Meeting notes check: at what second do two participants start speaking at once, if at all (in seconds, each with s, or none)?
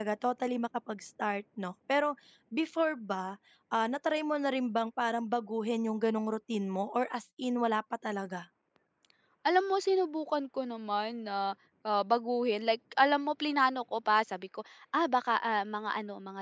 none